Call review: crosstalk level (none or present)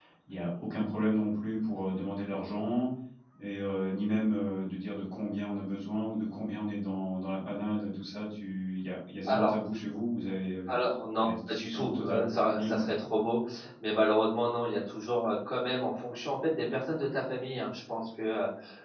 present